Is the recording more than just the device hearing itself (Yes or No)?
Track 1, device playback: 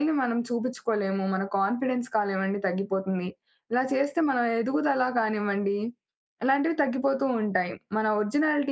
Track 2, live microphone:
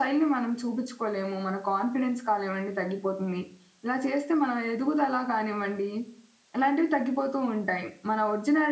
No